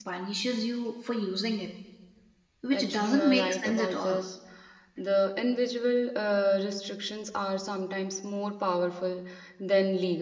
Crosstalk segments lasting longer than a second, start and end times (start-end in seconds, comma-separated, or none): 2.7-4.2